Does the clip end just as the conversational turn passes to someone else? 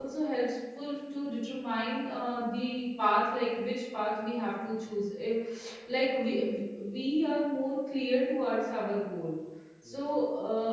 No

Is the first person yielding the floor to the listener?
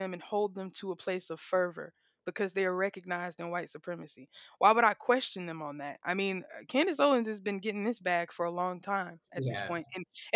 No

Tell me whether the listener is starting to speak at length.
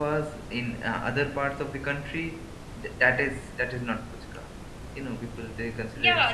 Yes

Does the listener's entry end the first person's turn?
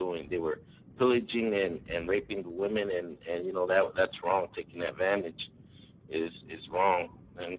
No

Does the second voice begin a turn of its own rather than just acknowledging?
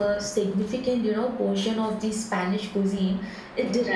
No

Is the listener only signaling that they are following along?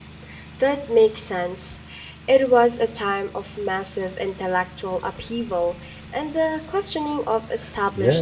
No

